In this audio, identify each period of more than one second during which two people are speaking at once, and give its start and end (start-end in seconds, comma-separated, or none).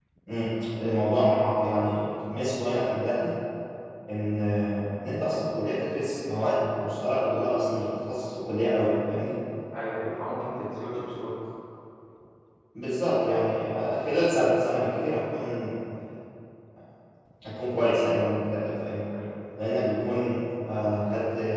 none